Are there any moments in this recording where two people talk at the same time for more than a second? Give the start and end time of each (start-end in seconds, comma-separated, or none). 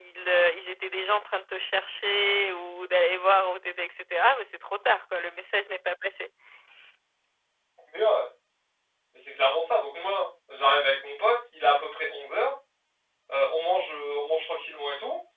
none